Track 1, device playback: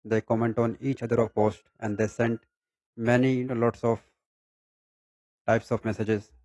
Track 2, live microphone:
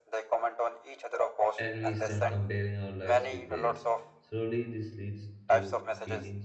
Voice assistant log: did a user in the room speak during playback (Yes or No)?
Yes